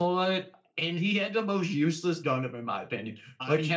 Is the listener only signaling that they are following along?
Yes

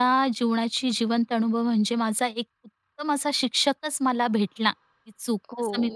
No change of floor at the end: No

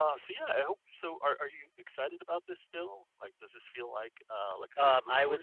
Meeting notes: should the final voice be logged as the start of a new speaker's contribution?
Yes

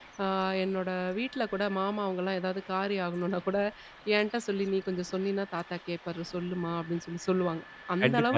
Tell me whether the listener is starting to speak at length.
Yes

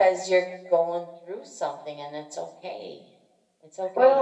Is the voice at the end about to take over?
Yes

